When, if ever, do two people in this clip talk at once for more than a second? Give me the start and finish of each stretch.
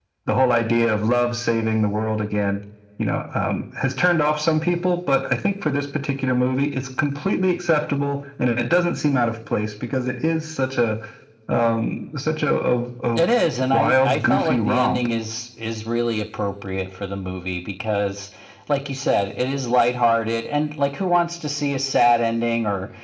13.7-15.1

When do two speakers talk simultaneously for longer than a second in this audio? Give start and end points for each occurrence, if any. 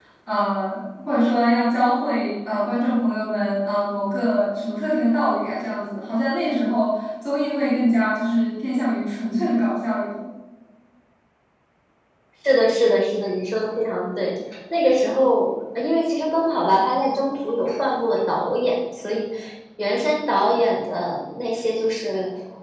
none

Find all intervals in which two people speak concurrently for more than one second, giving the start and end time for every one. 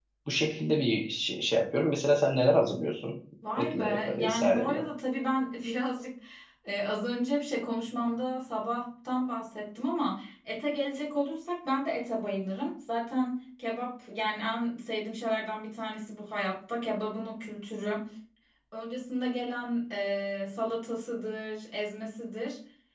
3.6-4.8

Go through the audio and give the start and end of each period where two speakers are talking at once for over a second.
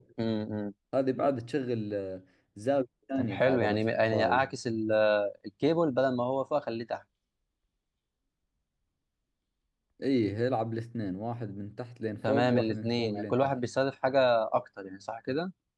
3.1-4.5, 12.2-13.5

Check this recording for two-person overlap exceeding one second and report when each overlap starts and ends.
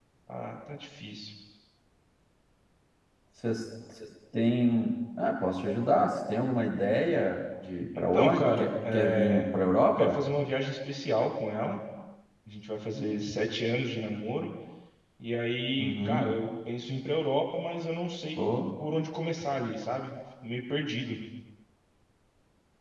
7.9-9.5

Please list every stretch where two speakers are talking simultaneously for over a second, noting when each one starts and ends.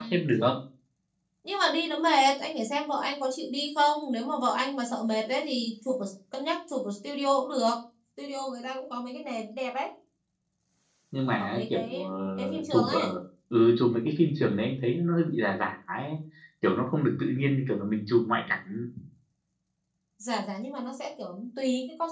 11.4-13.1

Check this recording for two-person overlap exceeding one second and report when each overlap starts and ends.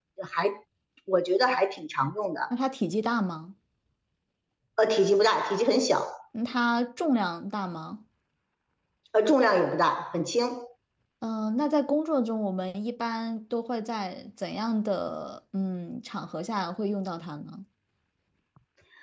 none

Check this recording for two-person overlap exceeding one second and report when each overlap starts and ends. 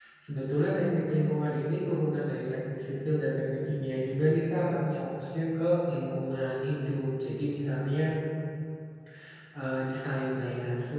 none

